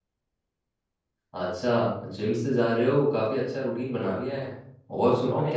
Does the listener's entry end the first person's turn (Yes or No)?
No